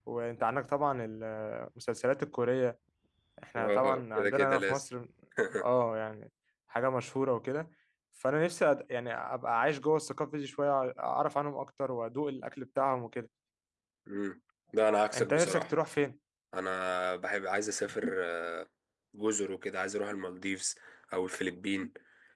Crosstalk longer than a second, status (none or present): present